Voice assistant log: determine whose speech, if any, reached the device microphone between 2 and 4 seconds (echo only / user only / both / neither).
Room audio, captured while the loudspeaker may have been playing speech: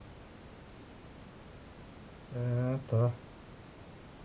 user only